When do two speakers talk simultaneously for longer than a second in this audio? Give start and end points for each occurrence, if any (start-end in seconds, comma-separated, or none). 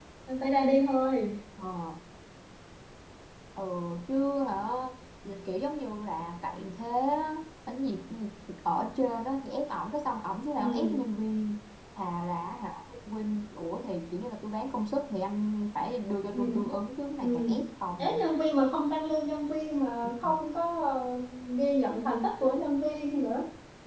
none